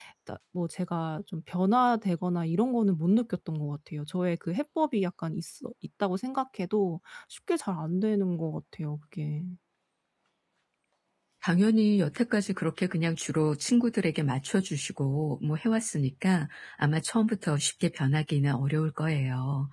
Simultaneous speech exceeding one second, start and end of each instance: none

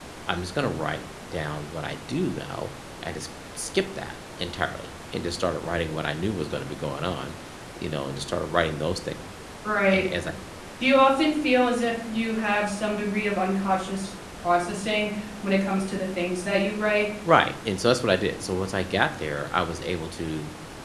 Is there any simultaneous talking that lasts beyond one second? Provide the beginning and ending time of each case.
none

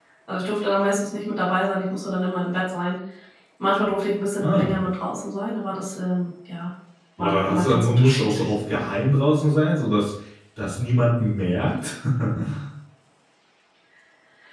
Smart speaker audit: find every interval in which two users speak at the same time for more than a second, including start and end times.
7.2-8.5

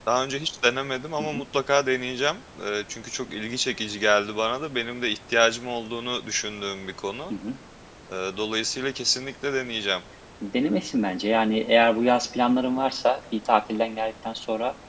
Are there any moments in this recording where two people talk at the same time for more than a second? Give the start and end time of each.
none

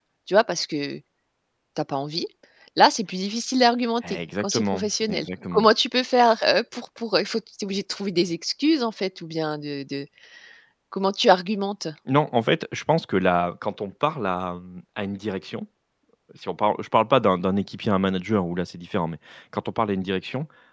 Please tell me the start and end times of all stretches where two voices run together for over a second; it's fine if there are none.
4.1-5.7

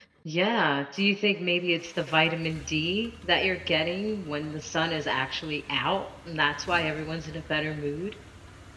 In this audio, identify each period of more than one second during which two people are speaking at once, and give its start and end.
none

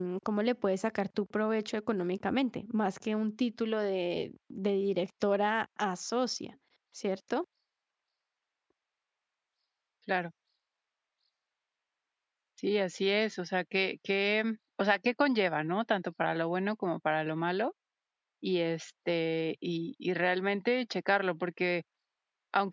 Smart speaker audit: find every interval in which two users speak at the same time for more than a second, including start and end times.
none

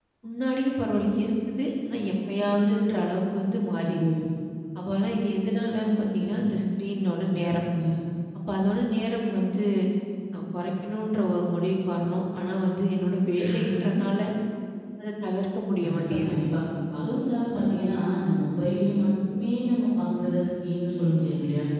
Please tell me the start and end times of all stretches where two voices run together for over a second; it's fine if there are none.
none

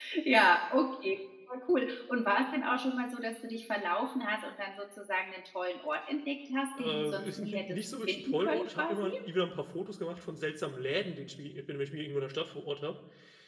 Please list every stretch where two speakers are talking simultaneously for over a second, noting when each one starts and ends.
6.8-9.1

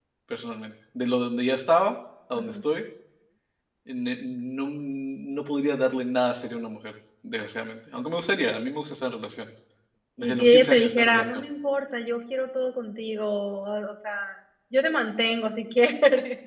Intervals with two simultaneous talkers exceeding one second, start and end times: 10.2-11.4

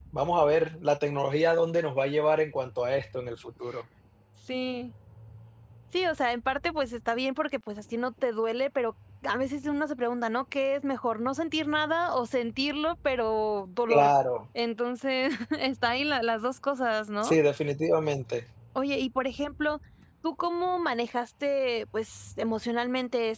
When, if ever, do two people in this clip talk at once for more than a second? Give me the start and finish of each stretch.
none

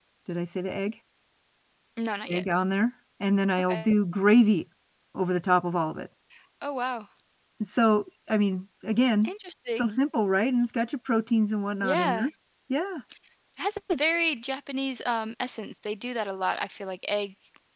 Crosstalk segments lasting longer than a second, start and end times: none

